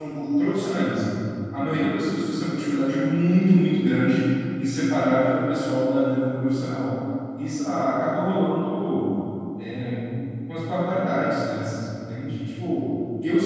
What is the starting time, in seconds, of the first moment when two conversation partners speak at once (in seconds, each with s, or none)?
none